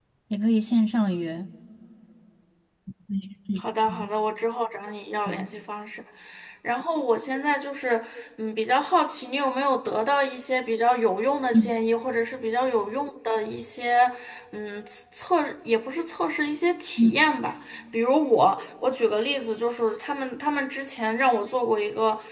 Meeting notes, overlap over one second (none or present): none